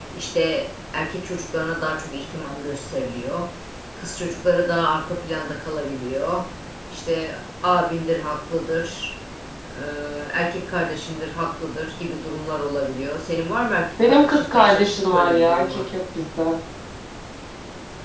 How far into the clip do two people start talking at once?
14.0 s

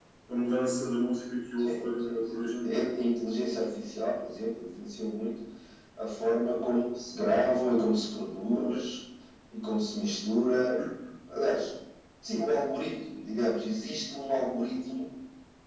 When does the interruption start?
1.6 s

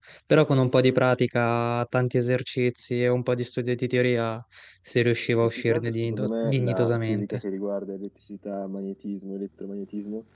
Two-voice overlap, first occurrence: 5.4 s

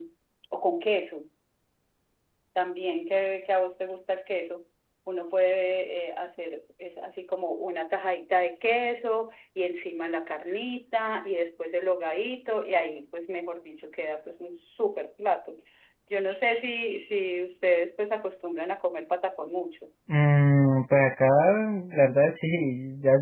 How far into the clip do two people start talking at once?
none

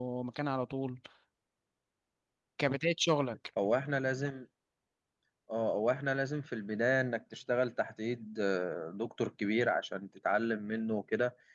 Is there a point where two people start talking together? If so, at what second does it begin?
none

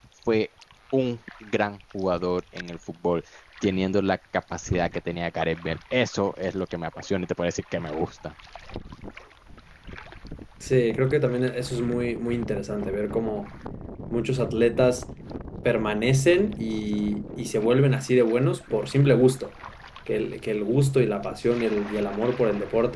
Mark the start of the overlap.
none

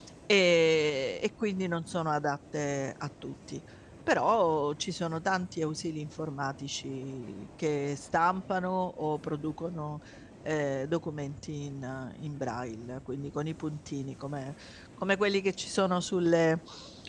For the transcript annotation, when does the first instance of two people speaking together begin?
none

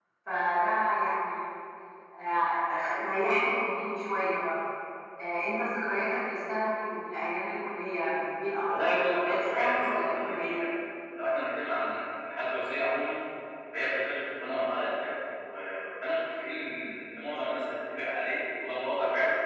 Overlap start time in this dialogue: 8.7 s

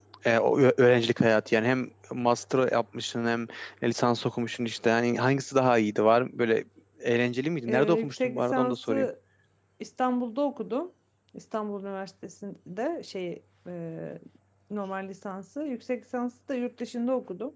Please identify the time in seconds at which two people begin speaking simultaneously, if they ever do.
7.6 s

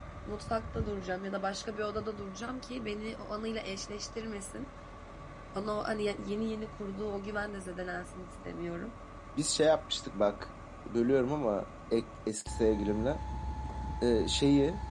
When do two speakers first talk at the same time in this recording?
none

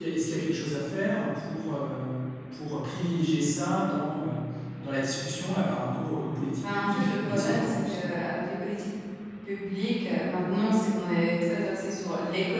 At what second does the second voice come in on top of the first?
6.6 s

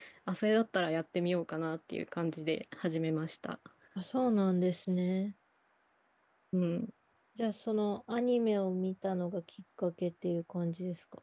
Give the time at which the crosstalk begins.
none

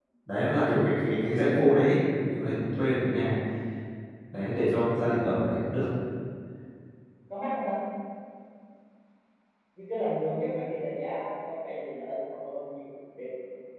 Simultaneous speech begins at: none

